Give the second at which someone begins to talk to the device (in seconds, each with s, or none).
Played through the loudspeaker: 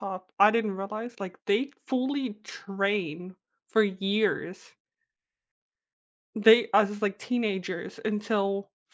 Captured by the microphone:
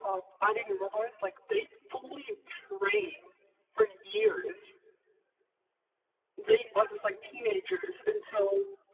none